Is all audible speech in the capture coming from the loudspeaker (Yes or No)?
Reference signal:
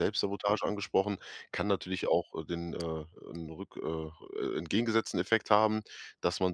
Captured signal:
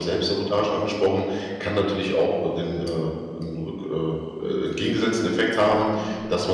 No